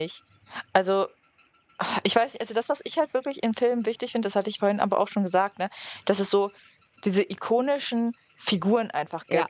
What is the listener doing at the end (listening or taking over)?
listening